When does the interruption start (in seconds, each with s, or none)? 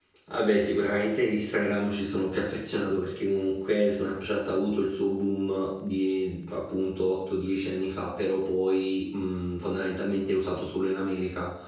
none